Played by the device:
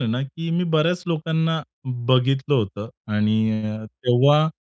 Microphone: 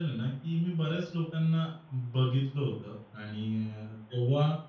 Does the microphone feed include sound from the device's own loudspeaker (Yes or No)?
Yes